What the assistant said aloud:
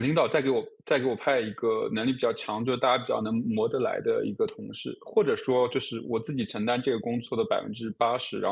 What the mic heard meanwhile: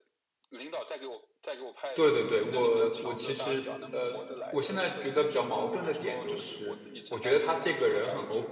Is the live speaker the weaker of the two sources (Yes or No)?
No